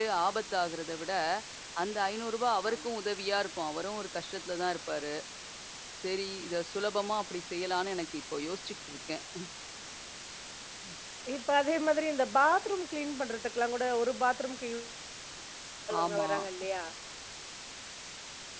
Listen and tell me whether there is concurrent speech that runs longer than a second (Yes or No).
No